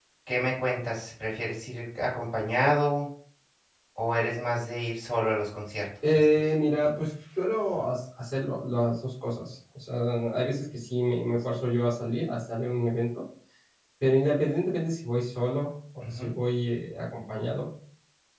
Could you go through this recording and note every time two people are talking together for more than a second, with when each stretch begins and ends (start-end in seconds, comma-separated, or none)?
none